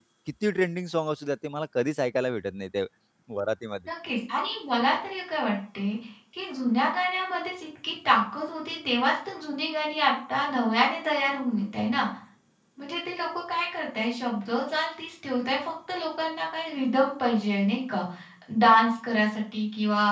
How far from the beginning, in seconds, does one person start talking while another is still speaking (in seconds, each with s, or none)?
none